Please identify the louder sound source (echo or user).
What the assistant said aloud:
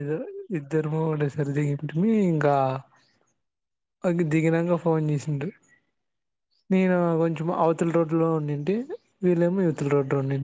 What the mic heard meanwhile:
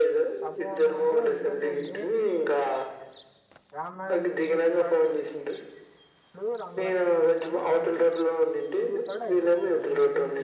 echo